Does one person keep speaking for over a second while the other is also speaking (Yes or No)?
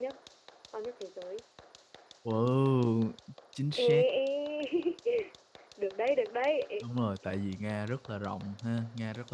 No